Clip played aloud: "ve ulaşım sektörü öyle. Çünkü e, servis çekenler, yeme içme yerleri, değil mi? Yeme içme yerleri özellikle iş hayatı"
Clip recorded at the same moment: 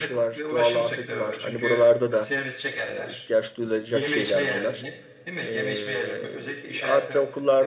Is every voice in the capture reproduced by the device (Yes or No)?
No